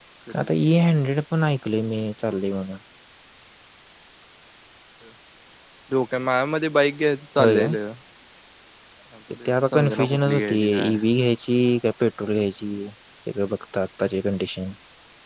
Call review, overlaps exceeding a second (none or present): present